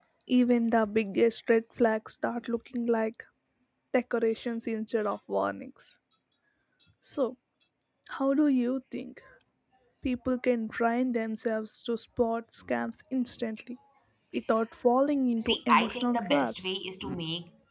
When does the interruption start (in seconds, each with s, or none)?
15.4 s